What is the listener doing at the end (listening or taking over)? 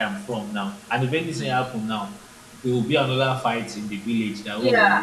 taking over